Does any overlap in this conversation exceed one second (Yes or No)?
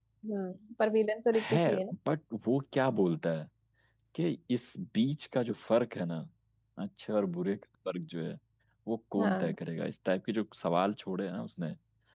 No